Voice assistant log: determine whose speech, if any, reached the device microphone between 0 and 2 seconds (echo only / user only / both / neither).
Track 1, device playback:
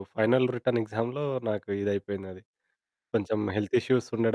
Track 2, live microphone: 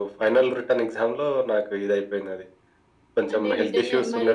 echo only